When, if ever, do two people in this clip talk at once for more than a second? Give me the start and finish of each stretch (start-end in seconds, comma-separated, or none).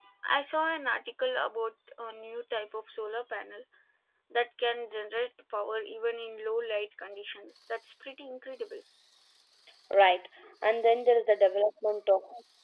none